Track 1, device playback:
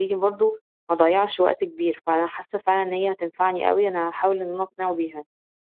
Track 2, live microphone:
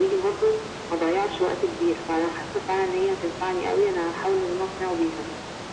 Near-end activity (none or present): none